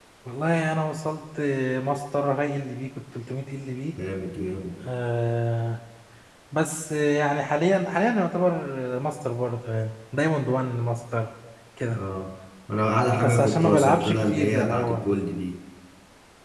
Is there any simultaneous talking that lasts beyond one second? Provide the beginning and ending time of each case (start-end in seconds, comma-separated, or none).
13.2-15.0